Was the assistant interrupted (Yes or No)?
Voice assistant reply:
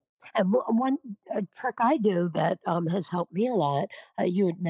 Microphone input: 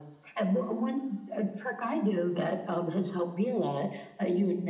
No